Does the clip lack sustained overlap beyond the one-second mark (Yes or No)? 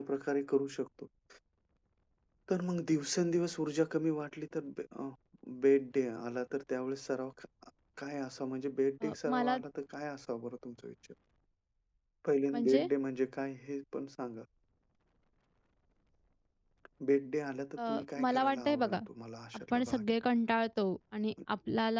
No